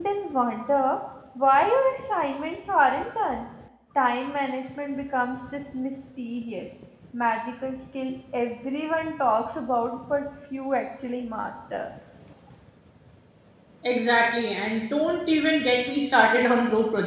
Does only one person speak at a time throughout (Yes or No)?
Yes